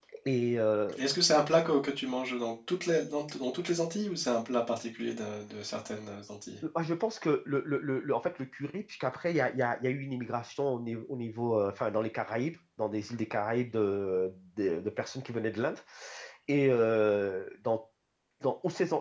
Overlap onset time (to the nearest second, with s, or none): none